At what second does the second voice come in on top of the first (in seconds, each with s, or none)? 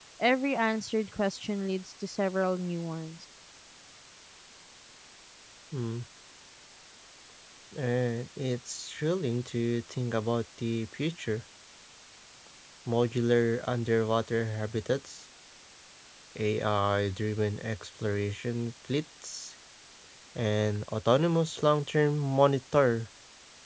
none